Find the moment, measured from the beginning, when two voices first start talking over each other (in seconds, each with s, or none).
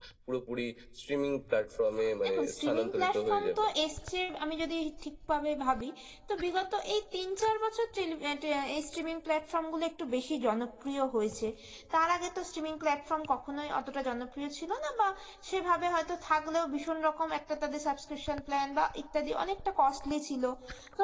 2.4 s